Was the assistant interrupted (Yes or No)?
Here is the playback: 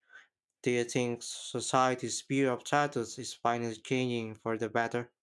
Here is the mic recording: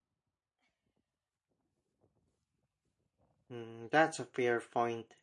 Yes